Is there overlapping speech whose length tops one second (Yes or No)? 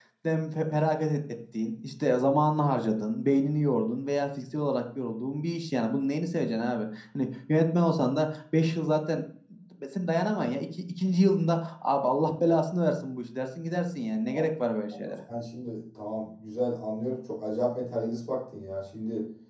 No